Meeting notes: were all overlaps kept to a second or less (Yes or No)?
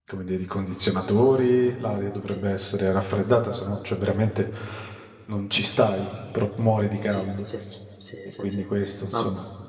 Yes